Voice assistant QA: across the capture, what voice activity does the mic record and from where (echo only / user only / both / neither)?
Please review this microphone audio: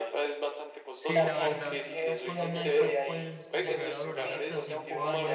both